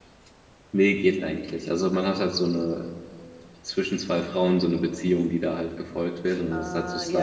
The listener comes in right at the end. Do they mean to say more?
Yes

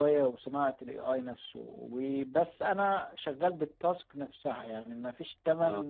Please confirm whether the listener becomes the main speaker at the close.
No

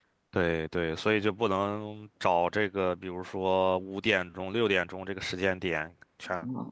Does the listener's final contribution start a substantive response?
No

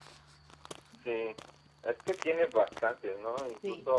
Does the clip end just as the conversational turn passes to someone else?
No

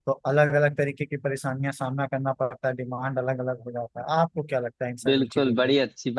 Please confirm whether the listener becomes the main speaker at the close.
Yes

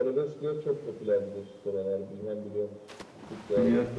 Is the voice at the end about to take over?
Yes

